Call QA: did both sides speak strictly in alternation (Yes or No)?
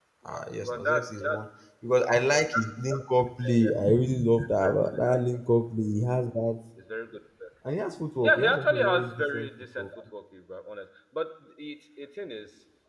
No